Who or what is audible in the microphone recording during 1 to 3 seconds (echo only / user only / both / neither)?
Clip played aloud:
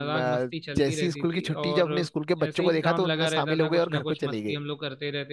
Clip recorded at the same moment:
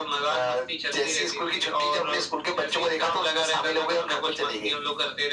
echo only